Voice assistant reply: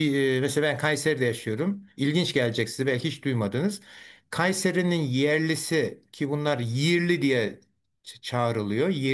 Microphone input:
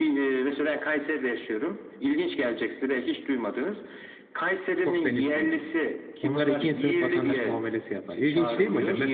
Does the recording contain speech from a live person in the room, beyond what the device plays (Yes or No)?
Yes